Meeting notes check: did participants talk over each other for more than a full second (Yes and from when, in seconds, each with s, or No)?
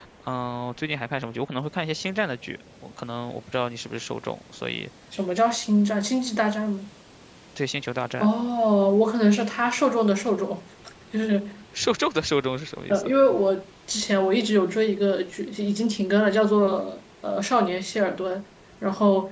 No